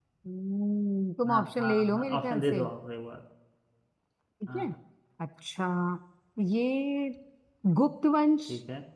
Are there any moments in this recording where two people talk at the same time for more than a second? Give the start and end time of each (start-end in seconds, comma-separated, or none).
1.3-2.6